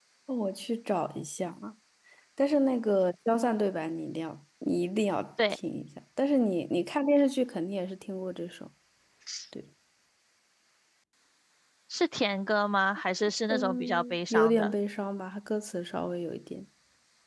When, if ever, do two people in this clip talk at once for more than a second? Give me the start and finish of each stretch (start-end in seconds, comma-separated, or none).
13.5-14.7